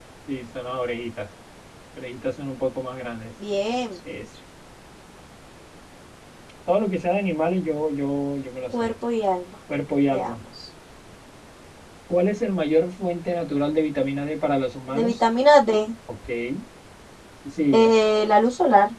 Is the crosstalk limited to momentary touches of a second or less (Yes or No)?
Yes